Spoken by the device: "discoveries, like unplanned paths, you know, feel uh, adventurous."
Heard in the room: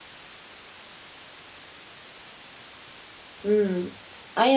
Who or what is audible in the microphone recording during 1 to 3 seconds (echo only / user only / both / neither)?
neither